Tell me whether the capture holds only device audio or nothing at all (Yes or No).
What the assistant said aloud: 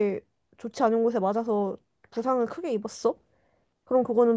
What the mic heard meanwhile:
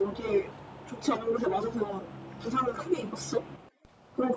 Yes